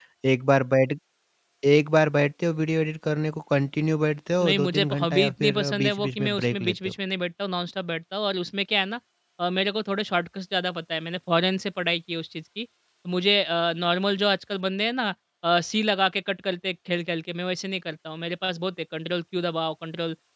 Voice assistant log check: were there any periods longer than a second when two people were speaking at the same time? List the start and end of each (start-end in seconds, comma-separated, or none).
4.4-6.8